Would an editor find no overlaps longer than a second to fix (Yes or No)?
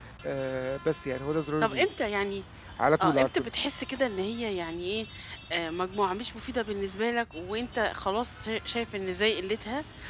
Yes